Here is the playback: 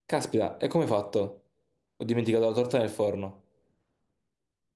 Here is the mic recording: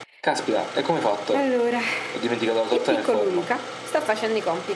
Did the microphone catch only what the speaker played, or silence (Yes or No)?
No